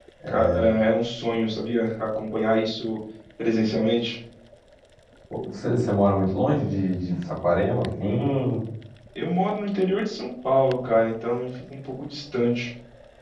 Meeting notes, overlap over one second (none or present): none